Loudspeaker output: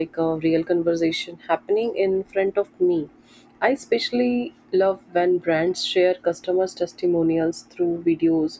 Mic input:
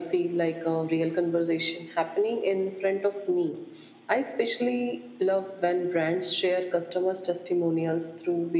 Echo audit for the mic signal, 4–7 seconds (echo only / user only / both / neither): echo only